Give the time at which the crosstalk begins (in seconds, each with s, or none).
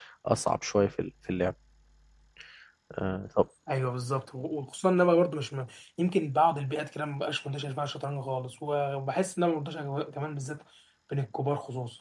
none